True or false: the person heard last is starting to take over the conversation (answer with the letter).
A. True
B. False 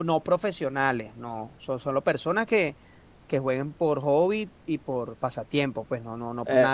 B